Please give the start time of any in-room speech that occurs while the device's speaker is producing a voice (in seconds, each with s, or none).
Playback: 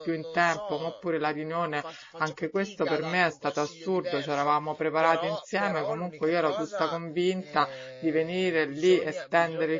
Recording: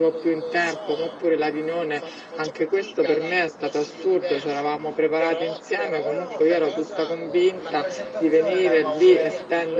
6.0 s